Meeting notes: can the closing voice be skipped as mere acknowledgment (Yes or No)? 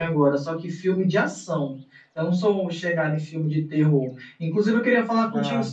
Yes